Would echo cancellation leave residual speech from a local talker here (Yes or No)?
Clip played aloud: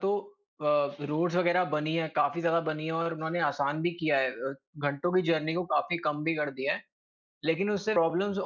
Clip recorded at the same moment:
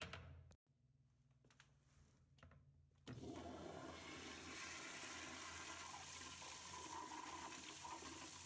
No